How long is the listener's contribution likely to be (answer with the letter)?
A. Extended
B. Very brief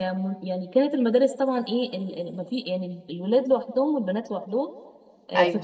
B